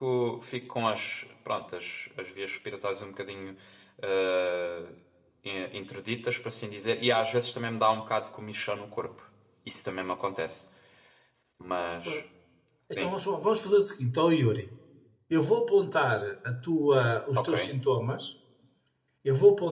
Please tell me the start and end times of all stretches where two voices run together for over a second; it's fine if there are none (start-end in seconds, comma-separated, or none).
none